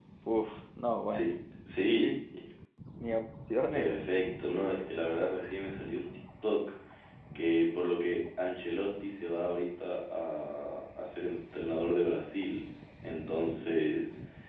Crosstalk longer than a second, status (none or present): none